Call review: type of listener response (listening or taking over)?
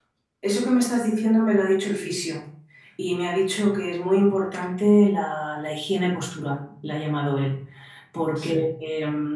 listening